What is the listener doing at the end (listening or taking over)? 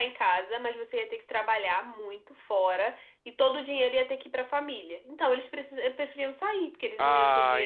taking over